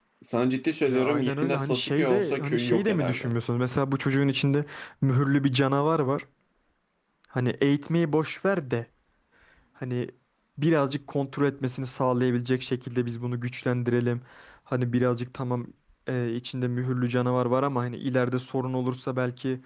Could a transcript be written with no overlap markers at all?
No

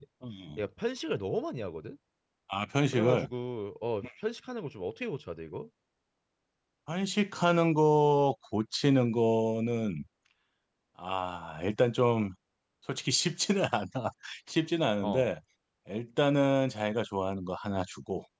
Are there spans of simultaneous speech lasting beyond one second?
No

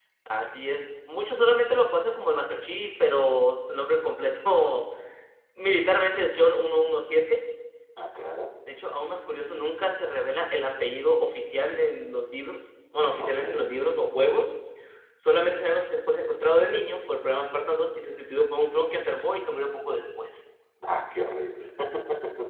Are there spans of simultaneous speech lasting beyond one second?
No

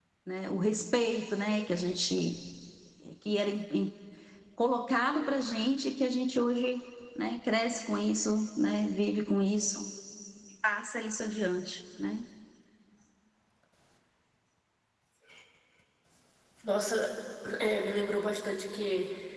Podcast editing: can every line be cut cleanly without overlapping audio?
Yes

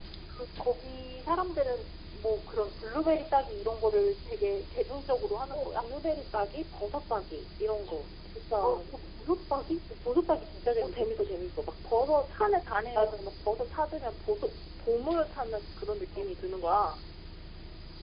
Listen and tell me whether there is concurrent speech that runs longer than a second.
No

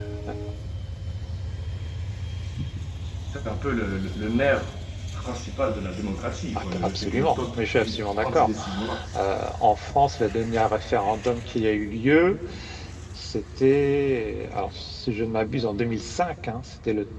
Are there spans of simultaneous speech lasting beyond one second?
Yes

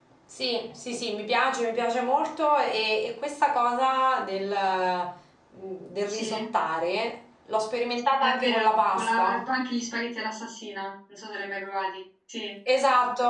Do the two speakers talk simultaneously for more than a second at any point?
Yes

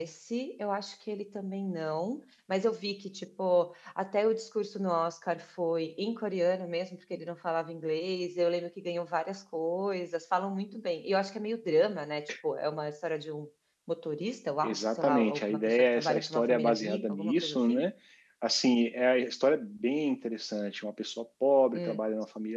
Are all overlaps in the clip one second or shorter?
No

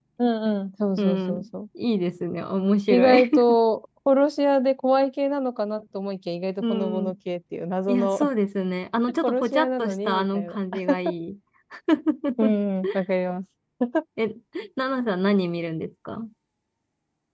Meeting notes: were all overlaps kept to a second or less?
No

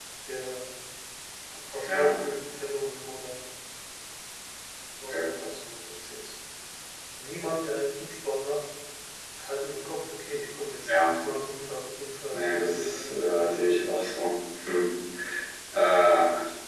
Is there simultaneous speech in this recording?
Yes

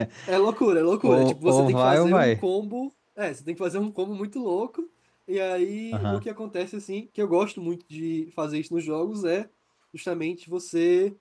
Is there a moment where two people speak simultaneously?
Yes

